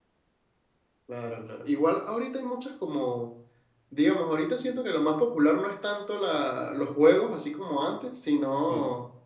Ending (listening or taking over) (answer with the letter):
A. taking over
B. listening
B